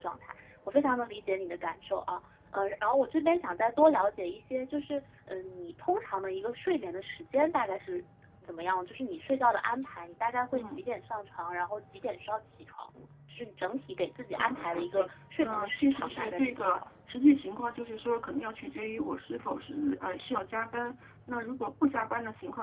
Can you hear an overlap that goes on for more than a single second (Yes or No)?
Yes